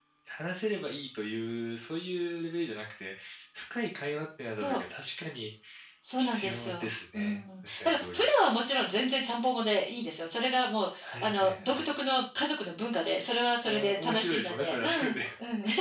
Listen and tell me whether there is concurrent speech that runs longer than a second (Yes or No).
Yes